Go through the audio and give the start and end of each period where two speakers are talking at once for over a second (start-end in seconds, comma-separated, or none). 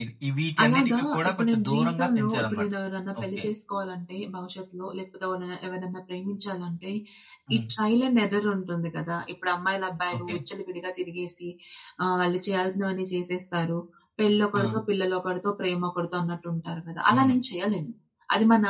0.6-2.7